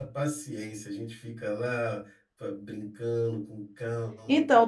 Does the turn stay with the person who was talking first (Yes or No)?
No